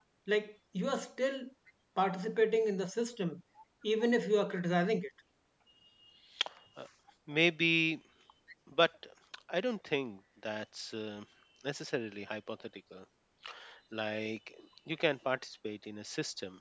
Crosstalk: none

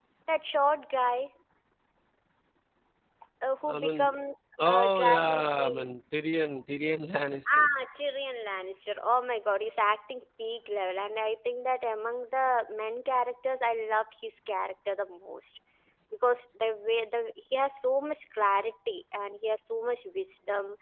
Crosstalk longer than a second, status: present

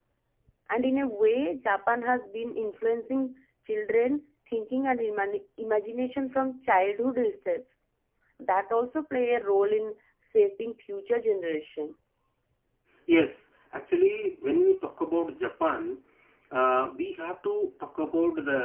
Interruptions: none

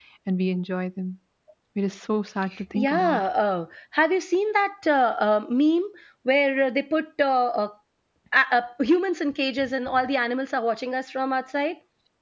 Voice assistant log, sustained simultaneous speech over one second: none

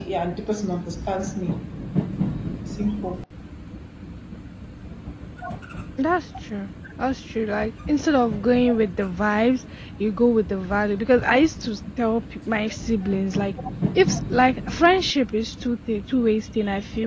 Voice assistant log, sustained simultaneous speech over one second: none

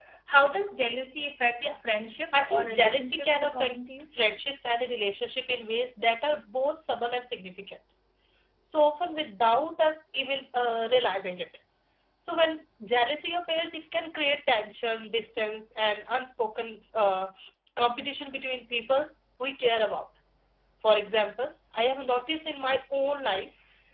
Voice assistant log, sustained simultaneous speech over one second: present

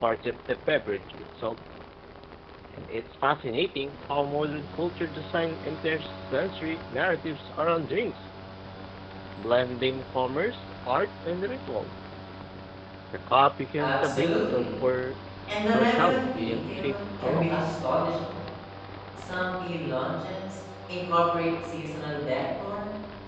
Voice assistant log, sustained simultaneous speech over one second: present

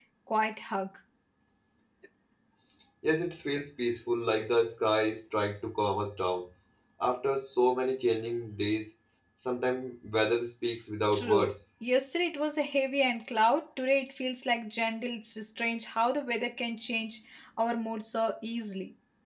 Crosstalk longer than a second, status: none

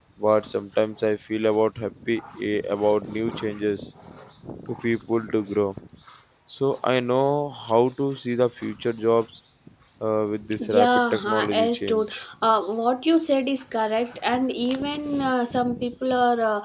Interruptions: present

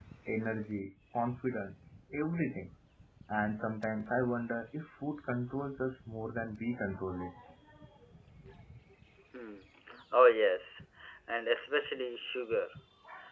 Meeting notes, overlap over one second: none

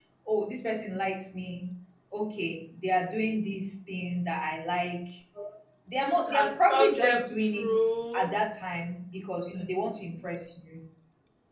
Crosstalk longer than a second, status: present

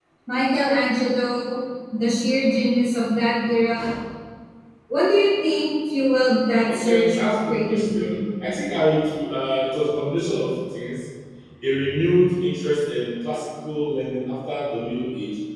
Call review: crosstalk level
present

